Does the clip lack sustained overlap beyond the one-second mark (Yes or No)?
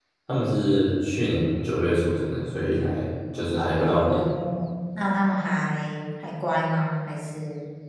Yes